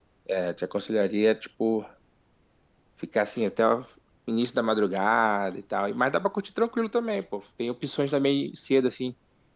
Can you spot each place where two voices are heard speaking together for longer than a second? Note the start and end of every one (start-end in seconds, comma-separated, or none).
none